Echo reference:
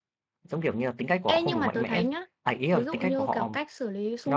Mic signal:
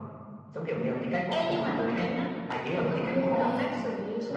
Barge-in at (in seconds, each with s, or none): 3.4 s